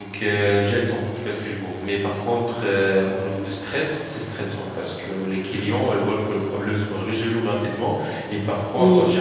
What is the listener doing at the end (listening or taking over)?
listening